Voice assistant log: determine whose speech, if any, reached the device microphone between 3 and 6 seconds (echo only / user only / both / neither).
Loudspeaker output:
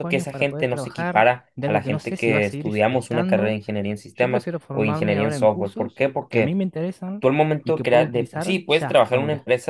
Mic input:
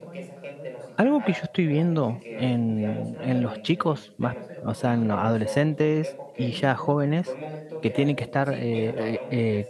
both